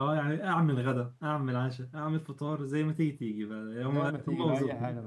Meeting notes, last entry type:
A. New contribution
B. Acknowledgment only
A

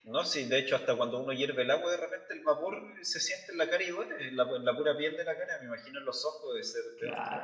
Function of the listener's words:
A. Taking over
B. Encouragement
A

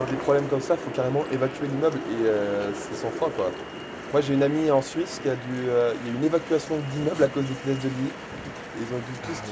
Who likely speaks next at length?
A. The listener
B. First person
B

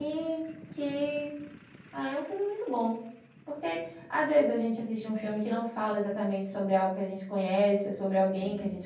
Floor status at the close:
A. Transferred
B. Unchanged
B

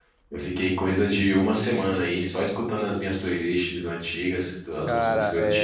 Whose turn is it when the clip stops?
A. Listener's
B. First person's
A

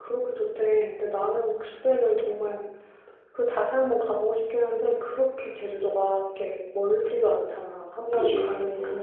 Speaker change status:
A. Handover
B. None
B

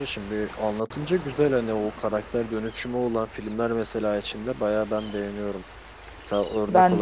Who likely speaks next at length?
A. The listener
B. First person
B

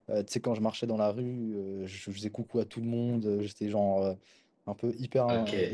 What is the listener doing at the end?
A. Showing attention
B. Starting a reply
A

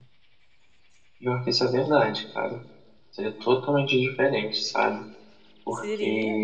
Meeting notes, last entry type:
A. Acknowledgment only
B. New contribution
A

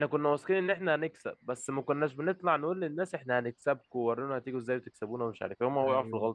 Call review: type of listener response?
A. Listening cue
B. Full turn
B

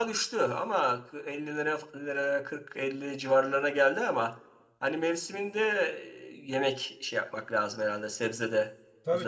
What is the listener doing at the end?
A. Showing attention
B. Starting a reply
B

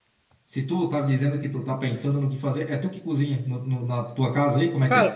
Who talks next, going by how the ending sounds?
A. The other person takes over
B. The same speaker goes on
A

